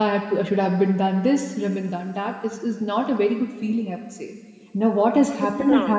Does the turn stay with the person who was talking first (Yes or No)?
Yes